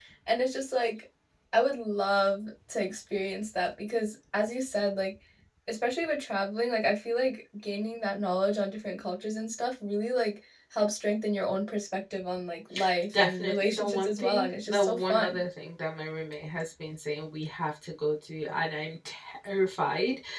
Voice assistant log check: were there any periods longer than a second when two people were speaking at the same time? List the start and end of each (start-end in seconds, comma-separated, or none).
13.2-15.4